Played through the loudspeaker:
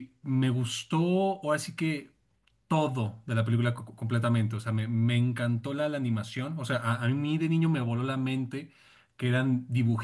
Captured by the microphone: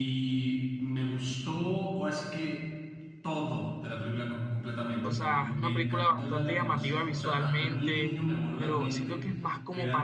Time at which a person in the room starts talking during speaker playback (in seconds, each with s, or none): 5.0 s